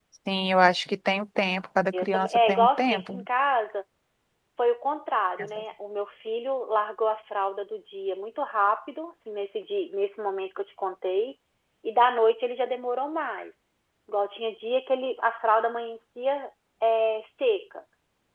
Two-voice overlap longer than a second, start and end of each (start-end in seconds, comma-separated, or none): 2.0-3.2